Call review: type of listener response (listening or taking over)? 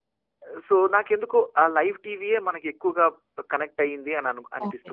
taking over